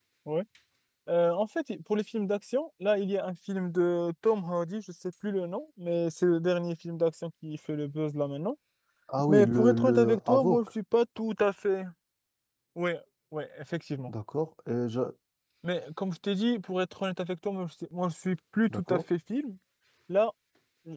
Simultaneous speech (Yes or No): Yes